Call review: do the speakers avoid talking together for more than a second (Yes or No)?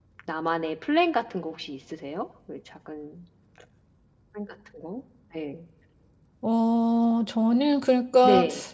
Yes